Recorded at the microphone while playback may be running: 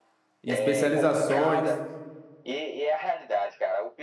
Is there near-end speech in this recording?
Yes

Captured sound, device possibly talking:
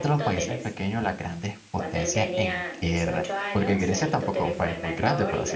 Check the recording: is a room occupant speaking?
Yes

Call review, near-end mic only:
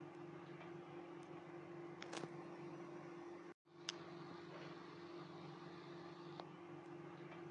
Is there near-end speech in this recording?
No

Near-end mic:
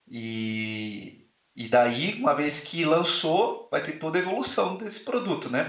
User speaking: Yes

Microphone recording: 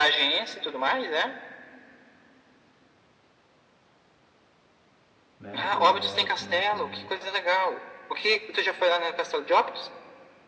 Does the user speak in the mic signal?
Yes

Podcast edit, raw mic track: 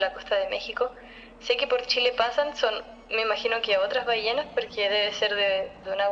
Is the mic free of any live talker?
Yes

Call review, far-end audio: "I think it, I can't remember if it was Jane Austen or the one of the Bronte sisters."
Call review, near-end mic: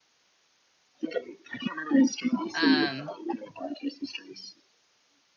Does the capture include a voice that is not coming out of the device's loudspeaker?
Yes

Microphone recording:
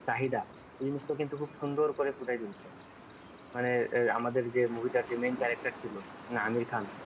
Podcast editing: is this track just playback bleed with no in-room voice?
Yes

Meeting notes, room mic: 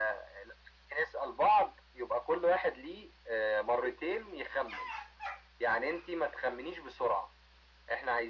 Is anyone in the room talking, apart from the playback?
No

